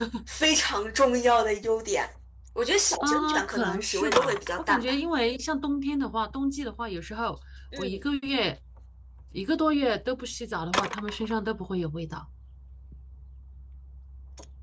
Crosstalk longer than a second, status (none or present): present